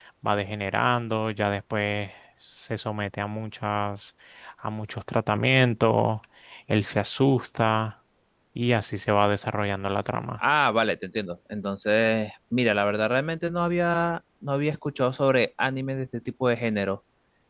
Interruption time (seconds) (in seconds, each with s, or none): none